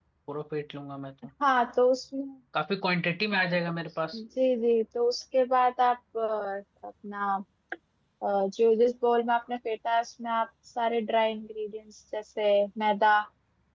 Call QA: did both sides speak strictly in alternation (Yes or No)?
Yes